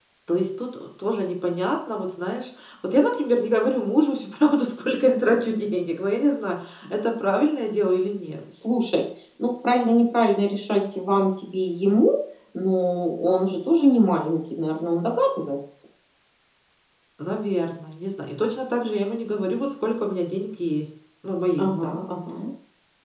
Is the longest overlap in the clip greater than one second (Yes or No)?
No